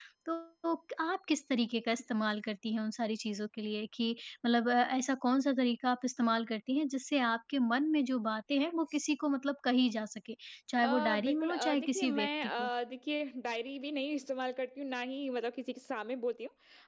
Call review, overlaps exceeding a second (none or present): present